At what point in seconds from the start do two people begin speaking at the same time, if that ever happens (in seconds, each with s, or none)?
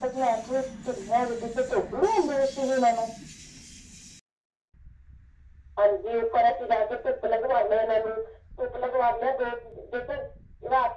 none